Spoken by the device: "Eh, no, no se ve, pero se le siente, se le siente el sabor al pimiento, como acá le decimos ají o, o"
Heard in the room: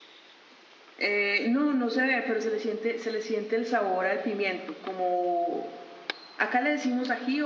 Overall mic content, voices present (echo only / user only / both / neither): echo only